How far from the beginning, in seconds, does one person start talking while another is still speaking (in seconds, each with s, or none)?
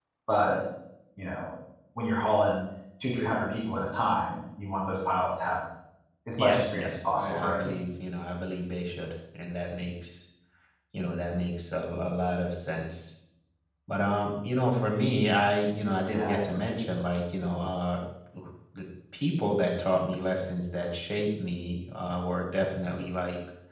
6.4 s